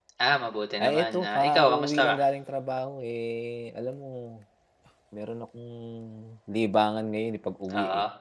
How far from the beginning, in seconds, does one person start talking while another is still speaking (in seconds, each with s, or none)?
0.8 s